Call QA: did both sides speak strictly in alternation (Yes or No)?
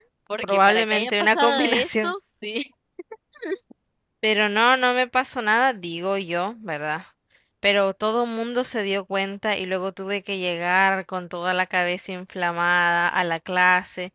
No